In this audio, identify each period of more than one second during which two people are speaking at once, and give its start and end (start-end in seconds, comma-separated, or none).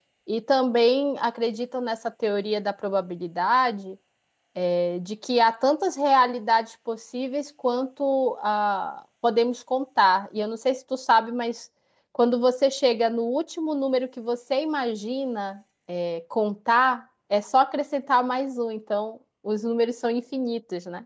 none